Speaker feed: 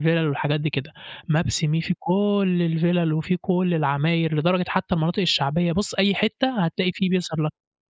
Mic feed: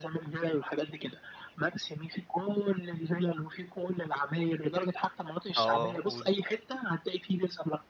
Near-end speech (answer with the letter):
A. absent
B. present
B